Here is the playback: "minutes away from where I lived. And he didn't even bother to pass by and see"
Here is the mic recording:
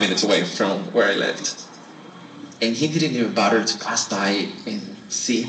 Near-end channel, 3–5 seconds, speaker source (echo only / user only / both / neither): echo only